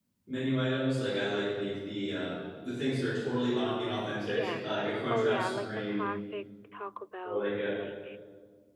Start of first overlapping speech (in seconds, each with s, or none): 4.3 s